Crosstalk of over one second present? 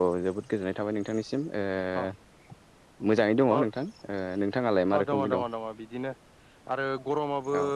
No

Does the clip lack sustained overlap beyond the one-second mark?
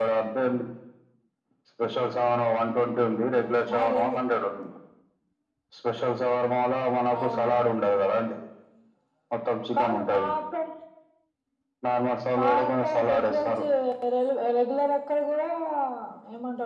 No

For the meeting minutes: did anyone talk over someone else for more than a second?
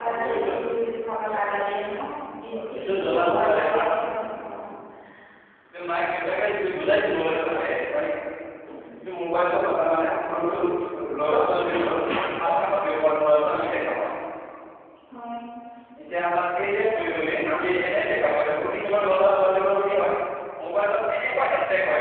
Yes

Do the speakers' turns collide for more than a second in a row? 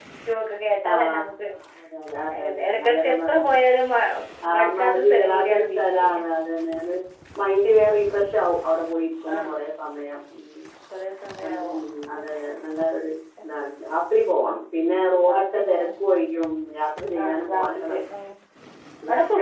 Yes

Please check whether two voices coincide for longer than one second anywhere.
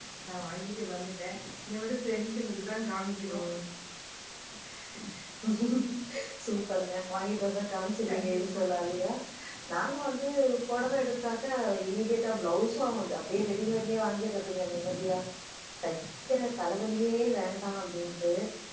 No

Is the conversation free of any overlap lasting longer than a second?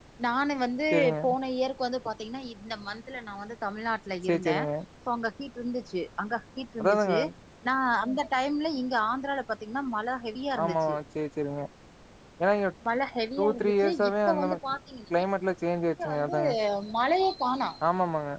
No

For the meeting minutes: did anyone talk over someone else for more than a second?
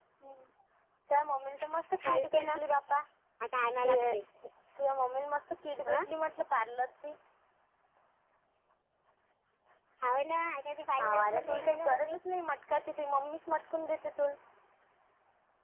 Yes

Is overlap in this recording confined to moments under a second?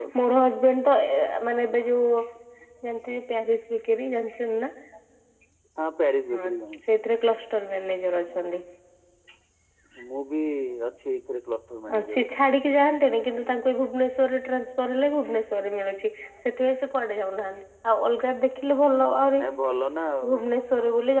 Yes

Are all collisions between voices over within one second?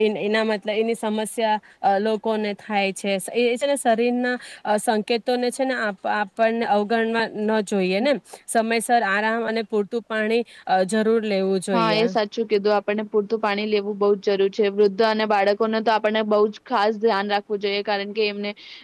Yes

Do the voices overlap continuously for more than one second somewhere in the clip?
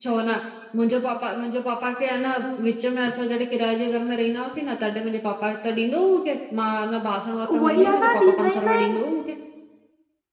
Yes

